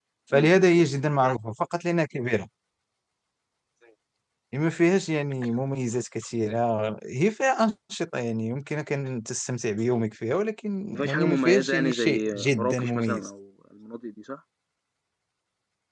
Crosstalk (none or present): present